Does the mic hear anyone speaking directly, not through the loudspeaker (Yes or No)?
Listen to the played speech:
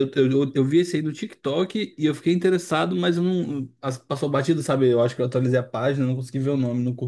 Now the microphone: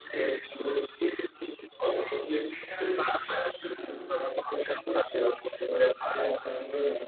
No